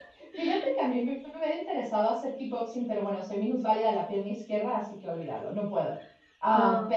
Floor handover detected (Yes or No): No